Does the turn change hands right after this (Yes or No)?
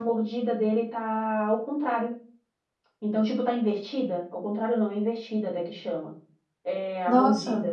No